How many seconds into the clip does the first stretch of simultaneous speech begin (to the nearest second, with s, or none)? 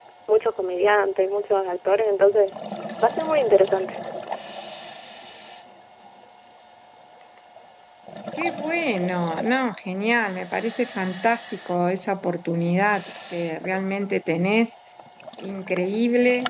none